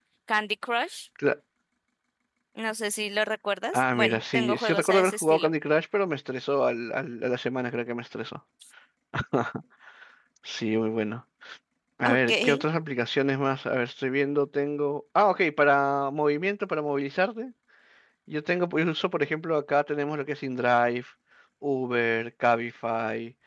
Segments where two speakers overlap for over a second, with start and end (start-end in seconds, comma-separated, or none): 3.7-5.5